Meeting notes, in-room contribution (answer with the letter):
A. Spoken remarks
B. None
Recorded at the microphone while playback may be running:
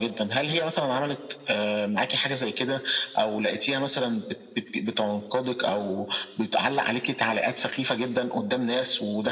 B